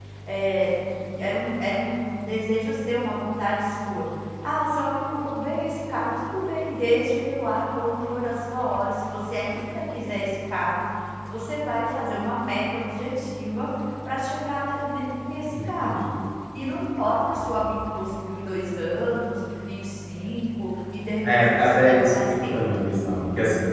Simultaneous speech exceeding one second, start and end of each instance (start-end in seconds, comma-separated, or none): 21.3-22.6